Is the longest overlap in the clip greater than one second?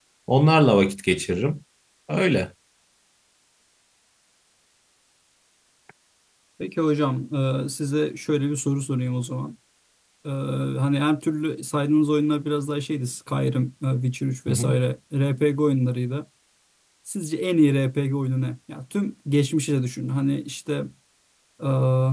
No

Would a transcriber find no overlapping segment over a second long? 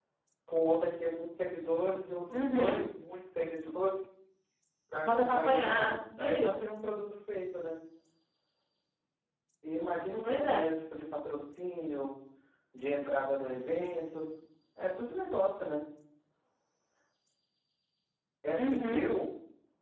No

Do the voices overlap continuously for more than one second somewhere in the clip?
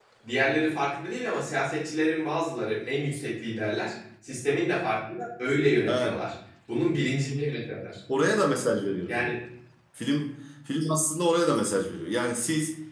No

